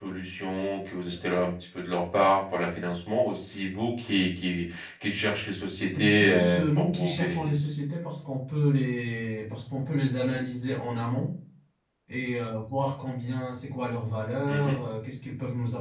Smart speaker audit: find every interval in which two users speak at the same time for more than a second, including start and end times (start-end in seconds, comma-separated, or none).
5.9-7.7